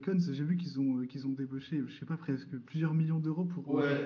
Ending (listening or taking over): taking over